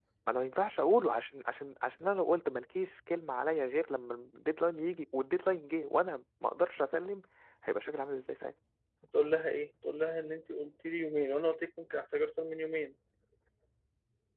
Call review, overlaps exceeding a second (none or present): none